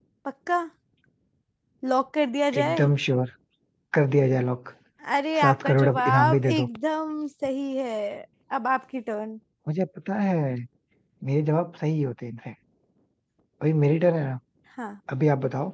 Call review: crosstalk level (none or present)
present